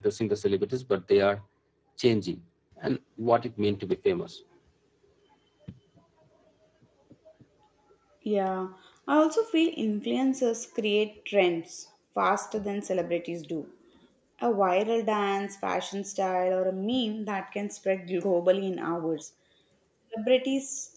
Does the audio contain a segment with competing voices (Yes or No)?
No